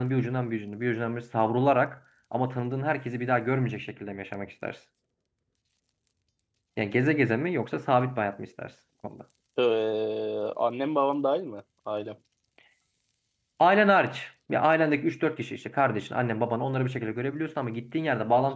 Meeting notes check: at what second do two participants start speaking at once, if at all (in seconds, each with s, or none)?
none